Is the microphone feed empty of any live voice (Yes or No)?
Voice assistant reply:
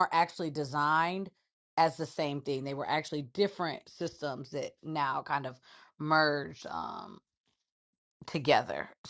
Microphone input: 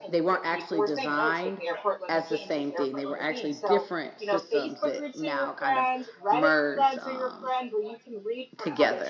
No